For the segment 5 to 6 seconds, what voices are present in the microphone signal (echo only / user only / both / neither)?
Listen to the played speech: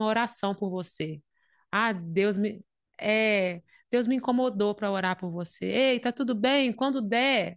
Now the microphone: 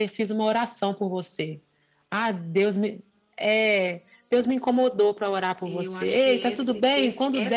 both